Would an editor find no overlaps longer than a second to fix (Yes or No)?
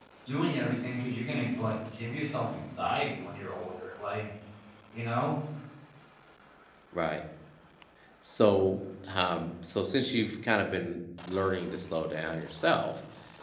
Yes